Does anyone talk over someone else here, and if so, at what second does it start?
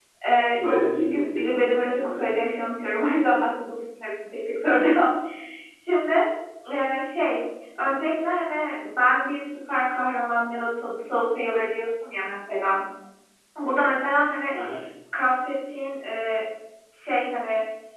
0.5 s

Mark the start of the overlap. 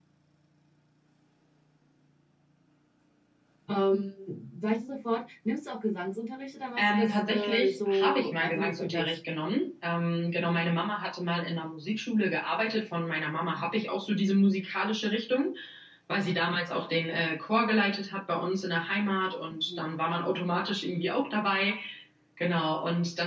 6.8 s

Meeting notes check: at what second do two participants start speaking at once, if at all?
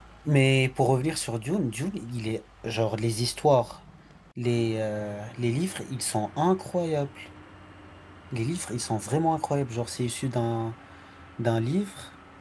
none

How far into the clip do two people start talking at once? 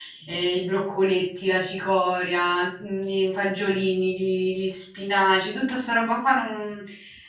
none

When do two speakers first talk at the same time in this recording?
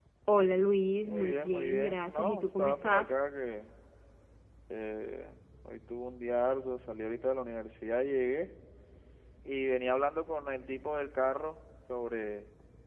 1.0 s

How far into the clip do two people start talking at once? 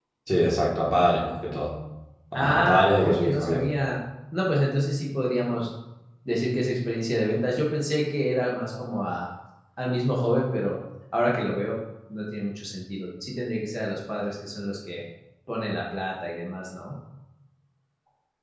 2.3 s

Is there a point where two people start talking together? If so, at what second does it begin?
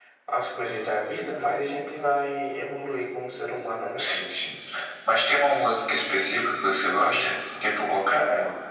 none

